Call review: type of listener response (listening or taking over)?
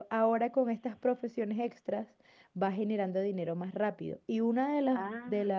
listening